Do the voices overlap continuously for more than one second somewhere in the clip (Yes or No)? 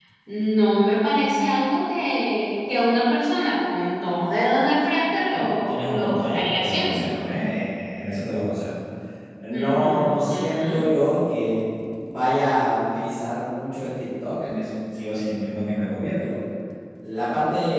Yes